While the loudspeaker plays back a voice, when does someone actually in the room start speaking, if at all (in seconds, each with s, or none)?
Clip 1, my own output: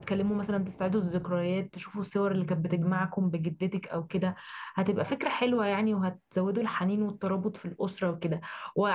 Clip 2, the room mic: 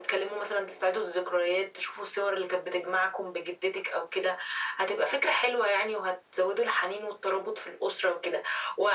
none